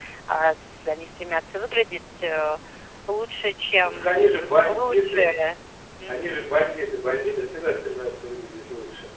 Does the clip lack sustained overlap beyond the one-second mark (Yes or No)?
No